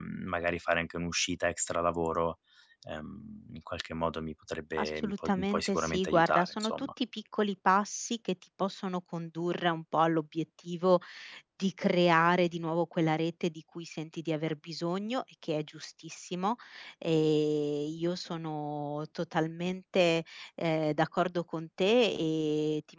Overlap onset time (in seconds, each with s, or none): 4.8 s